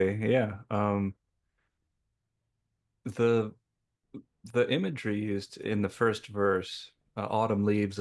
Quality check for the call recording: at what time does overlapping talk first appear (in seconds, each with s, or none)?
none